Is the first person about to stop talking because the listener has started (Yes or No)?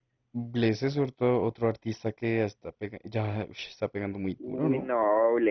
Yes